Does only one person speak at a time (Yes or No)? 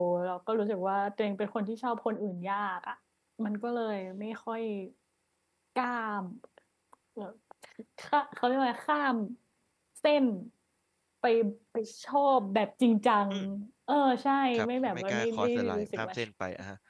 No